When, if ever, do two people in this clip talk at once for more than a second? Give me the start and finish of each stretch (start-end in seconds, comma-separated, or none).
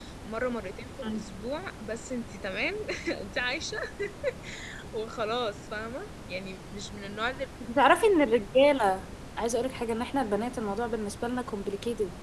none